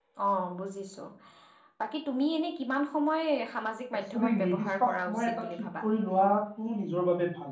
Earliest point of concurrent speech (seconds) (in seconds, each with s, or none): 4.1 s